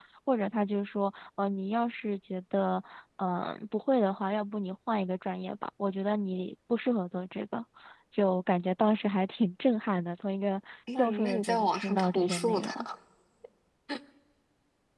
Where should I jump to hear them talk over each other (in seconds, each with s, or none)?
10.9 s